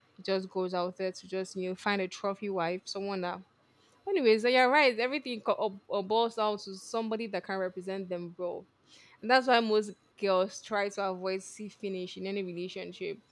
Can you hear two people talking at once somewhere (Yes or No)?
No